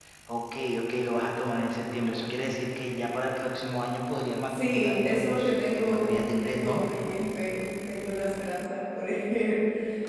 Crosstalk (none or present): present